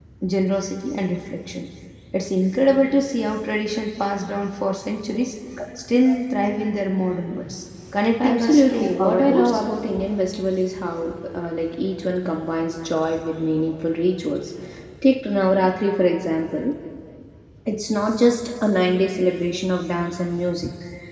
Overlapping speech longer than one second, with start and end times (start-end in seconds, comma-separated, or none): 8.2-9.6